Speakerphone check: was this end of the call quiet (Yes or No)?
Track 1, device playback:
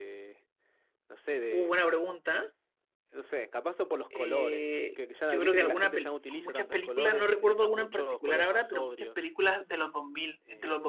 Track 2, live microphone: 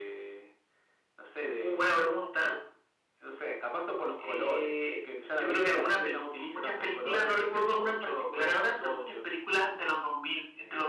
Yes